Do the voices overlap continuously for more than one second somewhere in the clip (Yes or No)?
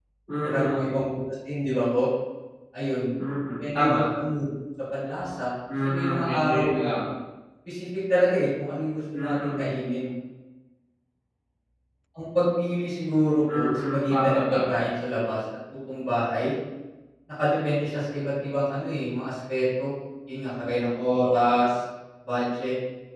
Yes